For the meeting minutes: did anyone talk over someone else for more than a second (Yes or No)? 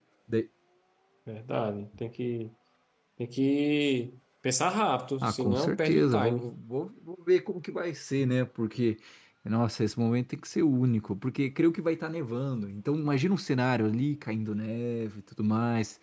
Yes